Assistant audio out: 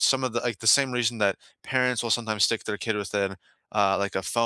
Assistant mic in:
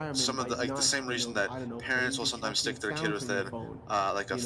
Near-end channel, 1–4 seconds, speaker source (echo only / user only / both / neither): both